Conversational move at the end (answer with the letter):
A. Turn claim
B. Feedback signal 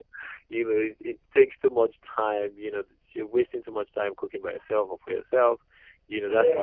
B